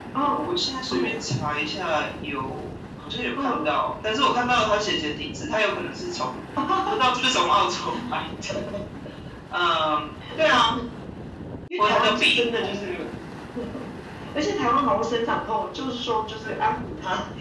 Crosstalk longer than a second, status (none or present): present